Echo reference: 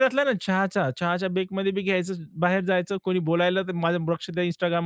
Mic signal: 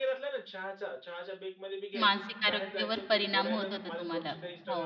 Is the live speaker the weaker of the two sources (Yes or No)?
No